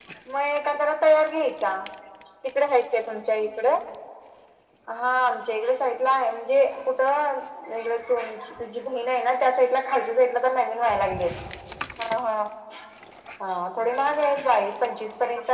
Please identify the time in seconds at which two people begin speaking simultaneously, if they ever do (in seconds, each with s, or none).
none